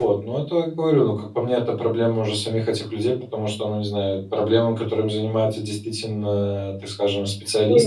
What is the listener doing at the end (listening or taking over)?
taking over